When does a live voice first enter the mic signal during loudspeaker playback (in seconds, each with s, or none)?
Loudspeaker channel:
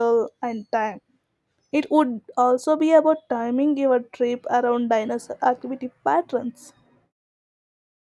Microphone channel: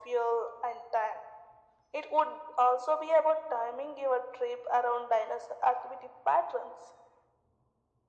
none